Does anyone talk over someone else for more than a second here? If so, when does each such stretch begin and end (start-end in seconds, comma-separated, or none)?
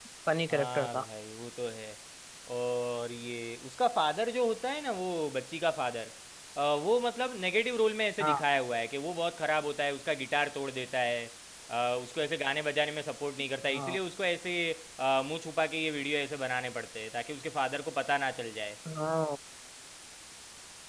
none